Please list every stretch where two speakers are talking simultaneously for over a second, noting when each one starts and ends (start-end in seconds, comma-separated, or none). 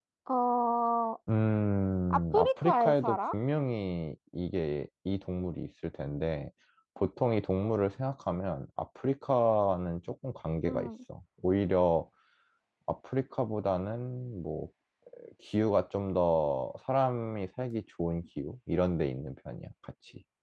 2.1-3.3